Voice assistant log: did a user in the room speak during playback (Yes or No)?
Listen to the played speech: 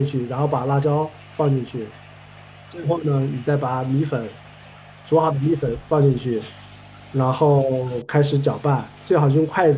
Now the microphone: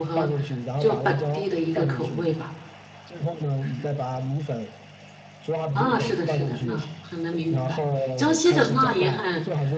Yes